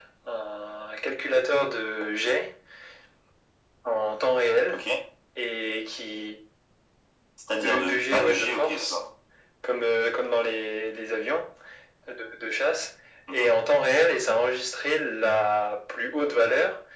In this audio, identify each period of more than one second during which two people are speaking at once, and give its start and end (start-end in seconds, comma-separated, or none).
7.5-9.0